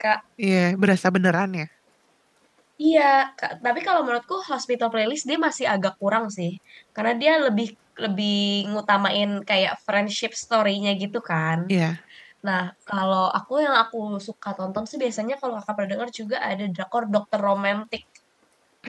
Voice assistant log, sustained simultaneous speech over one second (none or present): none